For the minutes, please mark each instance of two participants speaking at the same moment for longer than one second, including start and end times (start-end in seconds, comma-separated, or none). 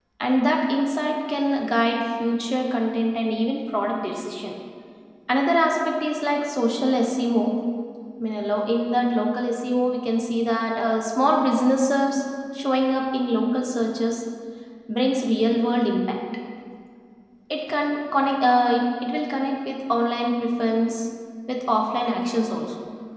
none